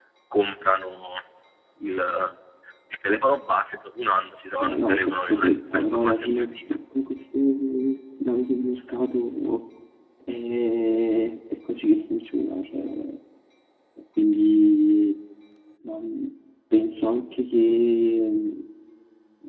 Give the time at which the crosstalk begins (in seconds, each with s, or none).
4.6 s